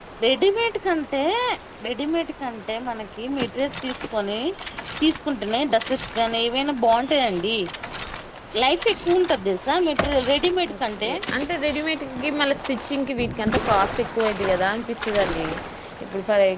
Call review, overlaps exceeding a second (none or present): none